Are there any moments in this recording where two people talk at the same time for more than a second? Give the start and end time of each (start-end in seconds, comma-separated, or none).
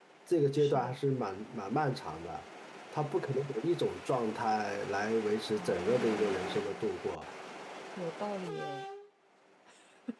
5.4-6.8